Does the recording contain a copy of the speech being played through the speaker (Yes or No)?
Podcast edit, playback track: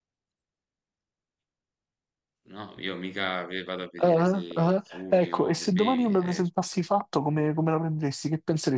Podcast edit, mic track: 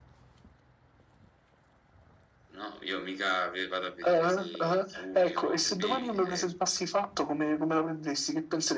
Yes